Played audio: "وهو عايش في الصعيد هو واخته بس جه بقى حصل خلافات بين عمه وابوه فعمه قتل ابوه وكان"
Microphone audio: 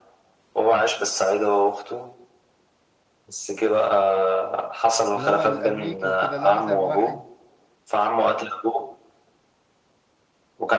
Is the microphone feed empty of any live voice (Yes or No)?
No